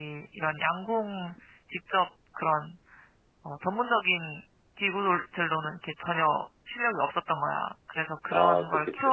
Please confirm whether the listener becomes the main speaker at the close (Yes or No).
No